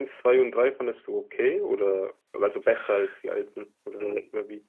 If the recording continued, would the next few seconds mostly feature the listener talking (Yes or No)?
Yes